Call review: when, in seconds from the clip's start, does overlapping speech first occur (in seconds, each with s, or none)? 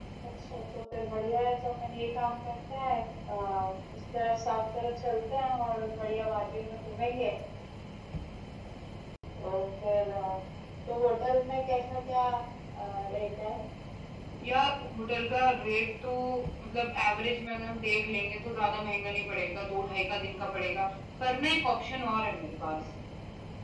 none